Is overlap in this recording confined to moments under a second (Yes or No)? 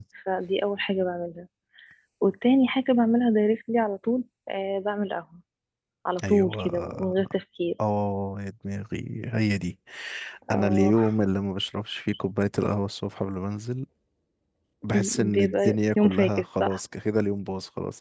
No